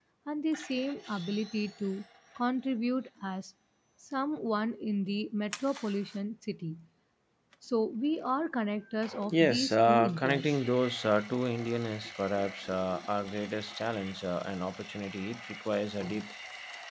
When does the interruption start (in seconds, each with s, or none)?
9.3 s